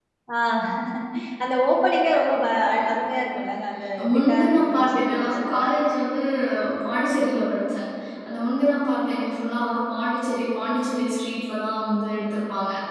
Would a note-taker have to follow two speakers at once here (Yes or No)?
Yes